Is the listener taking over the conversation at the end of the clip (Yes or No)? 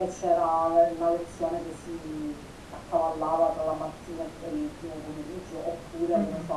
No